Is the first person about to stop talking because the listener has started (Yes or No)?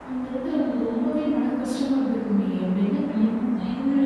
Yes